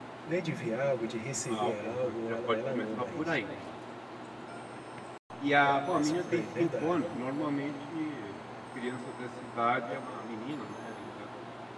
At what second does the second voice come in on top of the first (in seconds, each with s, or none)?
1.5 s